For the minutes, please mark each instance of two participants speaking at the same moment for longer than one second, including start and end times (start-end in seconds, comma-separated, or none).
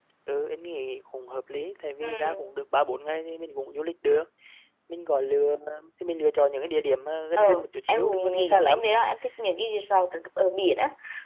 7.4-8.9